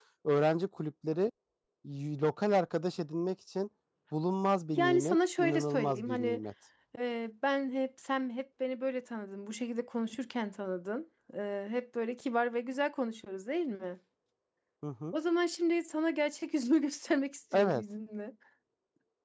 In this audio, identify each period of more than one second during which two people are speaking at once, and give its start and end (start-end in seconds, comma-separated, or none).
4.8-6.4